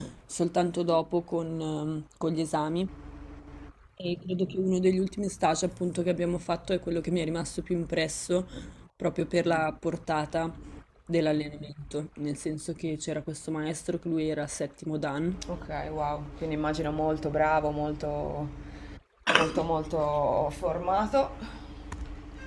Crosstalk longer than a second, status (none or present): none